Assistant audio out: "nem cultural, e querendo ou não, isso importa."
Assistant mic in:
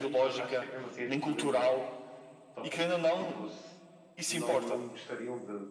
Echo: present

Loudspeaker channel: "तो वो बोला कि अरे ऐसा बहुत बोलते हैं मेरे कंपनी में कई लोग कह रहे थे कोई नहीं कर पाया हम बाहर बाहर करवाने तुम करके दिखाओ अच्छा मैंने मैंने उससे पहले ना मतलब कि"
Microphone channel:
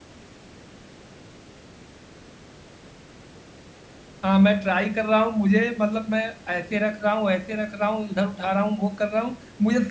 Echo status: none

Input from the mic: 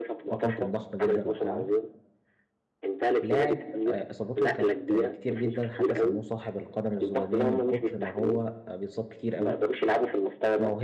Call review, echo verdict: present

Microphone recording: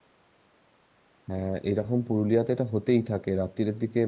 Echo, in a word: none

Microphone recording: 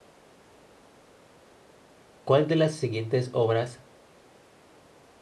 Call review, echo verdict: none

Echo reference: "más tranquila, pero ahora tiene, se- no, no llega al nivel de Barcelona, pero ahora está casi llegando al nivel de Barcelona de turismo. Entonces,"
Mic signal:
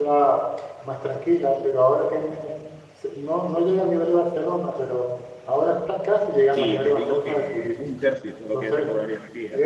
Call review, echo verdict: present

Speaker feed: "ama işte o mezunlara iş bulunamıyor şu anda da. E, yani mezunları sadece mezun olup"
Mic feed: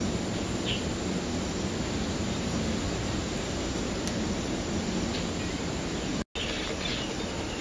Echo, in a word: none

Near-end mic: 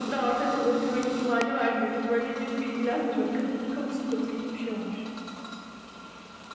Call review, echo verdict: present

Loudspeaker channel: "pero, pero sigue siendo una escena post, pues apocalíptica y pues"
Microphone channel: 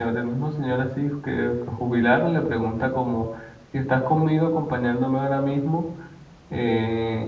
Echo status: none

